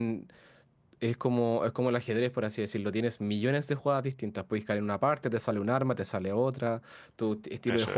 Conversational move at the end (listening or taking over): listening